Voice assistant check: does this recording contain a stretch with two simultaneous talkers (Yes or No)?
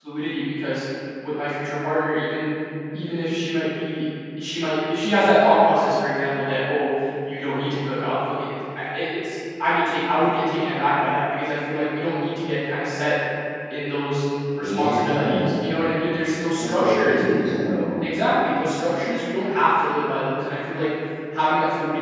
Yes